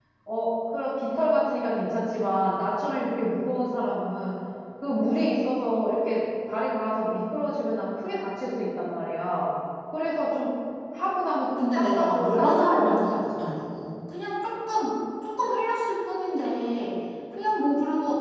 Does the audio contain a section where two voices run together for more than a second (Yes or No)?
Yes